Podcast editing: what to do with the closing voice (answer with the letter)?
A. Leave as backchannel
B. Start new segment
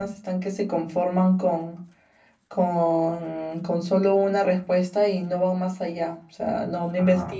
A